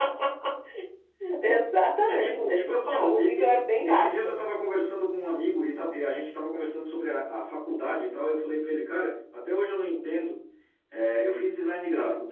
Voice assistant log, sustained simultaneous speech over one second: present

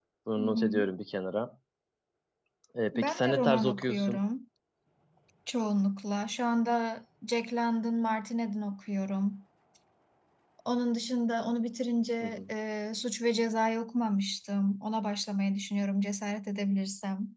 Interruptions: present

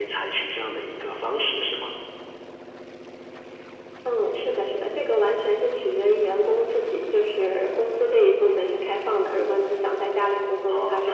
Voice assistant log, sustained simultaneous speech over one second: none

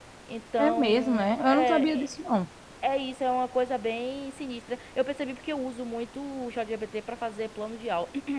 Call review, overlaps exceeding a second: present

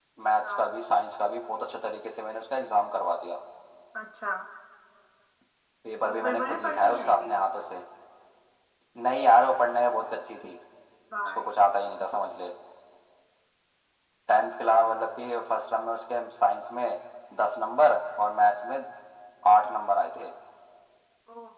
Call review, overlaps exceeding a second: present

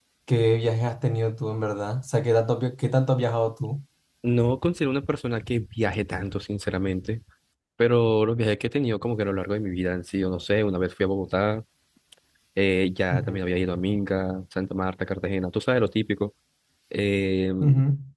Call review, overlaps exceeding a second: none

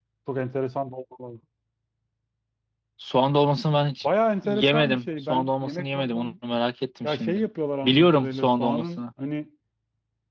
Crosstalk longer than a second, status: present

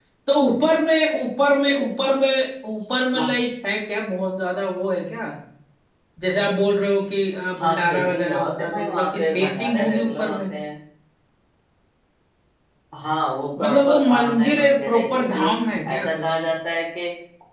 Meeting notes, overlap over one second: present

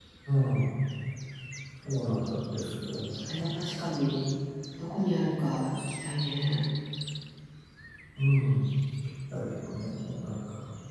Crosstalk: none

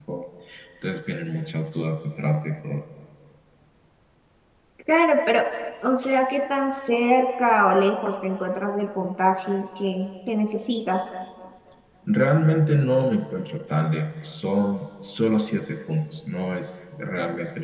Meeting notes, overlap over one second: none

